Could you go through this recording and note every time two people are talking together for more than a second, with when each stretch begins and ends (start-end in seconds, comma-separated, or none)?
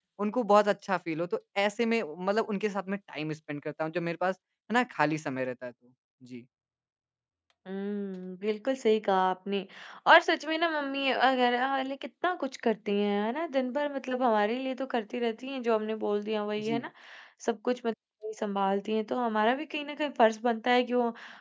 none